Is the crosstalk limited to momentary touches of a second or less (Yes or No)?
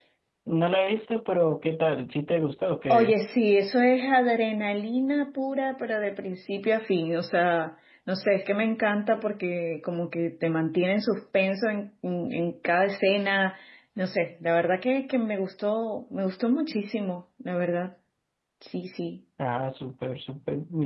Yes